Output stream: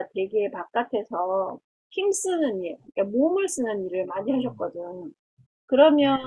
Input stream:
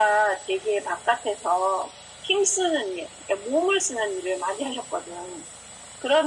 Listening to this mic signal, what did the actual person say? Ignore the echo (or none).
none